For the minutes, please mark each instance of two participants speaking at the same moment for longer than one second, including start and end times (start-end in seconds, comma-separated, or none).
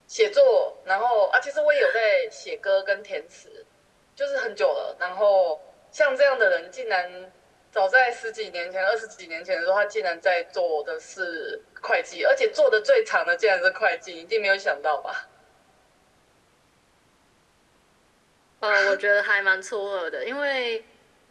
none